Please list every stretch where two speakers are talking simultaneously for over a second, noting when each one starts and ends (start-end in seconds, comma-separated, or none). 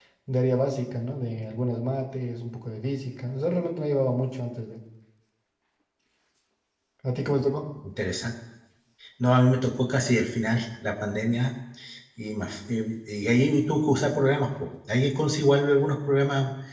none